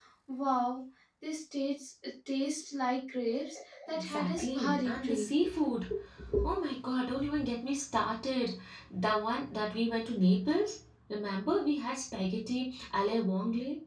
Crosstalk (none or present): present